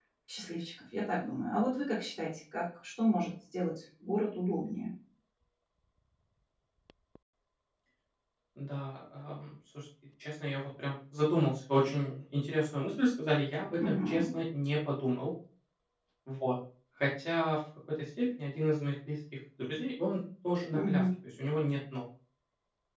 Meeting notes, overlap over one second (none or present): none